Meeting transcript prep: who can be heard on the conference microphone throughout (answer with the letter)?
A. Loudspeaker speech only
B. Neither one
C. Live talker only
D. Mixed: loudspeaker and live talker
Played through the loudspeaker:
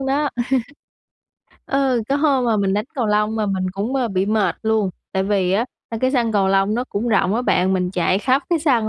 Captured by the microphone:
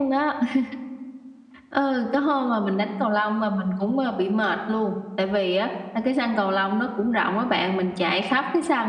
A